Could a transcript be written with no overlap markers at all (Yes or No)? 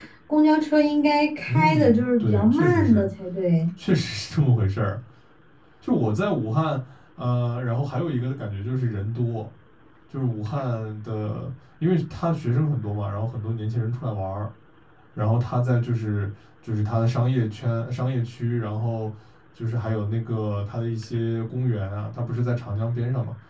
No